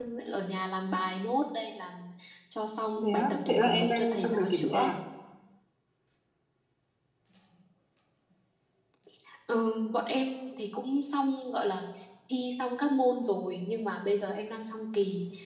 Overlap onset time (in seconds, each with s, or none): 3.0 s